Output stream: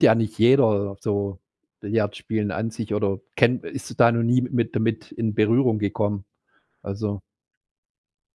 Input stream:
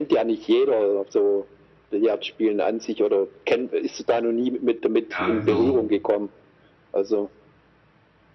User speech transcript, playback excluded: Ja, genau.

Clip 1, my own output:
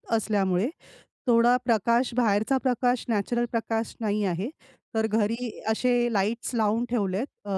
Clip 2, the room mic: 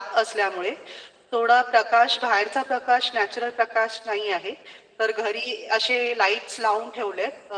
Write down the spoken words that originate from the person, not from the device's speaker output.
none

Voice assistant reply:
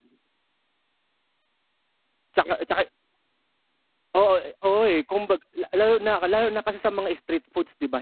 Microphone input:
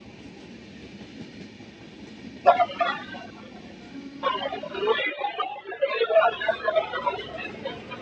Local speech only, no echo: none

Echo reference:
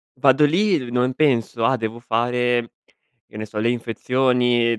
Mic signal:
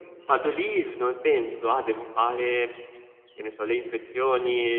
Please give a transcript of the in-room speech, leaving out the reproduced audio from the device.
none

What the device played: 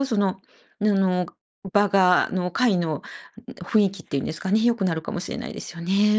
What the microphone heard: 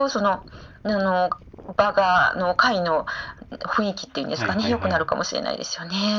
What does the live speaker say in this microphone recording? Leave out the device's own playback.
ん、はいはいはい。

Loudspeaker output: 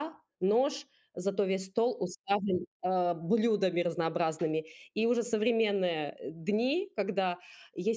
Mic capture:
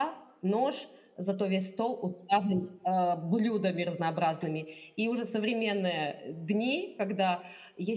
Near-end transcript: none

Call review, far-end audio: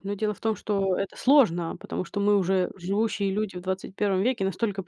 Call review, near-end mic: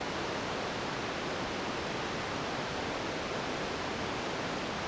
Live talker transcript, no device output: none

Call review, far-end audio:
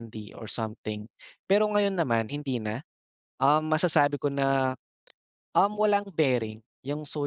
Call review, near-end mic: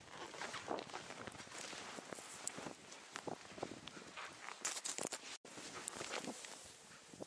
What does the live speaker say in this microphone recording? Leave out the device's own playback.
none

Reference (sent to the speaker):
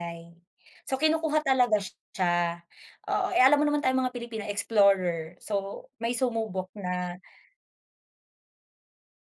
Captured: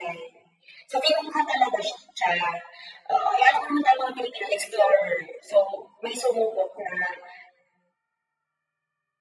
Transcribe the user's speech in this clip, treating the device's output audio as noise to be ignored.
none

